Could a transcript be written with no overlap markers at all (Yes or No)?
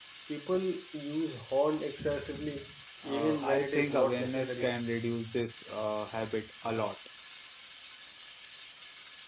No